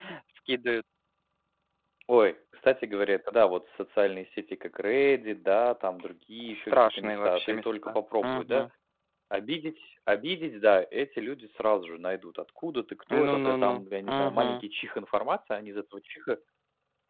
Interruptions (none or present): present